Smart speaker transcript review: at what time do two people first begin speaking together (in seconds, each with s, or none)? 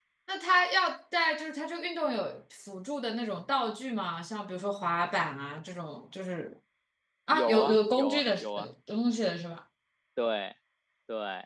7.3 s